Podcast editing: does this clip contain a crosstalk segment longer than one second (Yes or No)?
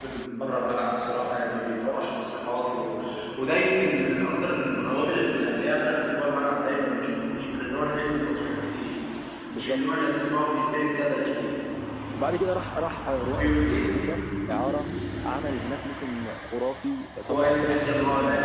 Yes